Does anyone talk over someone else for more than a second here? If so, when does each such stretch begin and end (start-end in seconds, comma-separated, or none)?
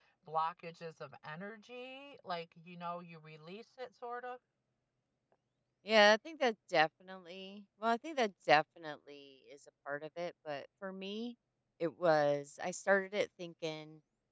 none